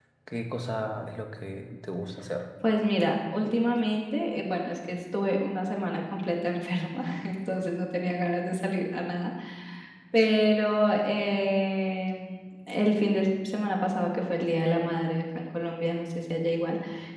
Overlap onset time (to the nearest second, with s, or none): none